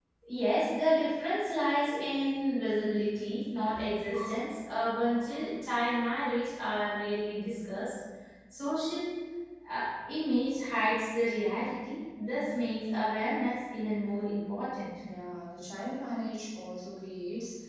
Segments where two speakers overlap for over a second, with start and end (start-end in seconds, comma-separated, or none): none